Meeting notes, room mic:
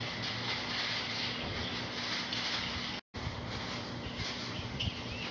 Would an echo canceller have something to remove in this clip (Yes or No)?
No